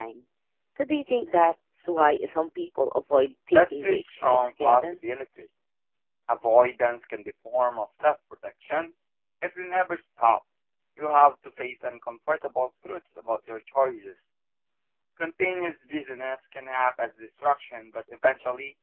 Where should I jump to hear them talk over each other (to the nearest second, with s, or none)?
4 s